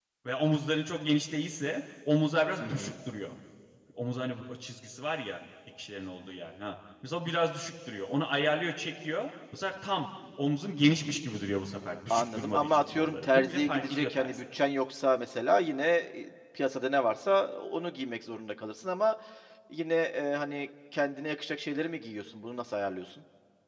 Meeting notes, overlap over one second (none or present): present